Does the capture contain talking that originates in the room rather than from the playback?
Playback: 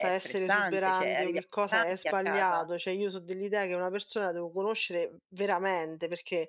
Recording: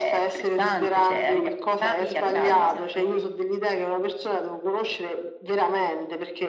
Yes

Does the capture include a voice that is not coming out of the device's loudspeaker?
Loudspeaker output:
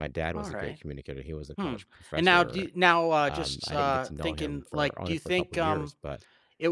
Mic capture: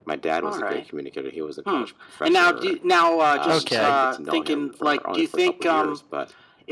Yes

